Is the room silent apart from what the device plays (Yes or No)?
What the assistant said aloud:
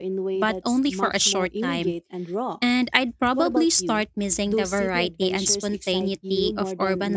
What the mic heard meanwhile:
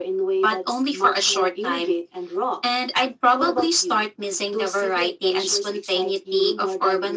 Yes